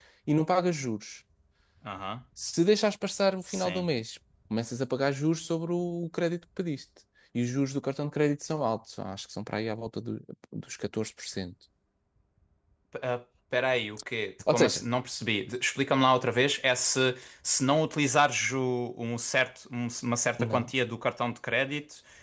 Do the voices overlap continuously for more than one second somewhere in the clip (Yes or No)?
No